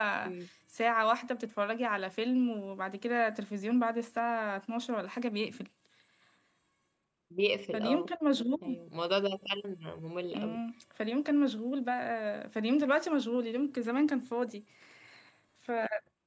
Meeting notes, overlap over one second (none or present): none